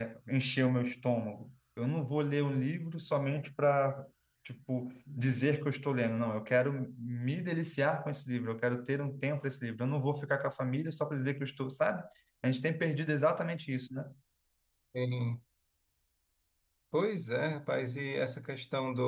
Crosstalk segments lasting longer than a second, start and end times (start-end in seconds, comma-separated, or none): none